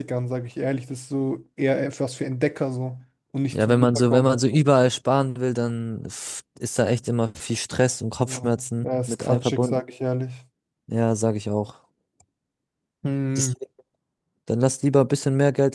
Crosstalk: present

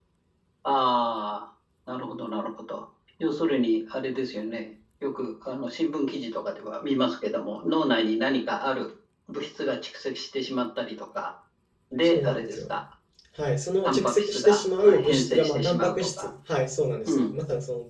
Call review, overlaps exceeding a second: present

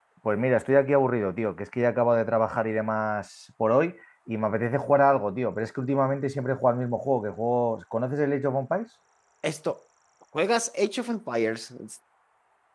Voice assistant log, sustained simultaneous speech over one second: none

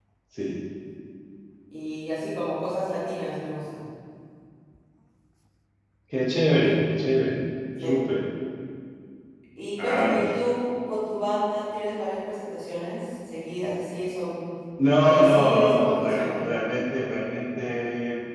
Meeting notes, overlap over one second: present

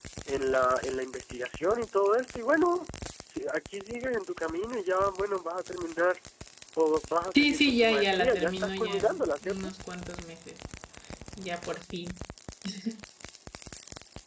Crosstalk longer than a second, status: present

